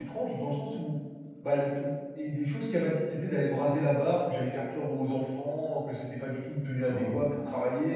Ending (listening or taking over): listening